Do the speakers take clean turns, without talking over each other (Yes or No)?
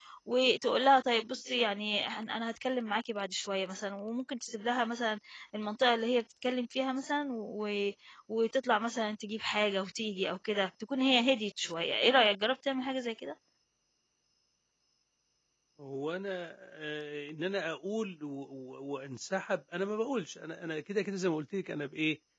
Yes